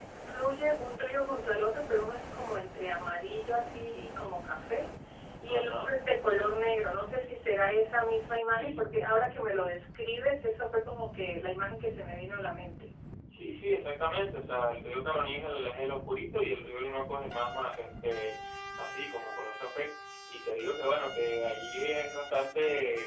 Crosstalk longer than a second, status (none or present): none